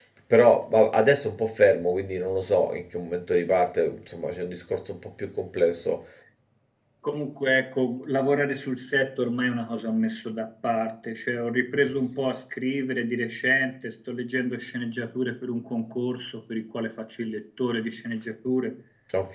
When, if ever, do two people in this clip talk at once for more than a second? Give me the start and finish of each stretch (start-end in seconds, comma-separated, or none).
none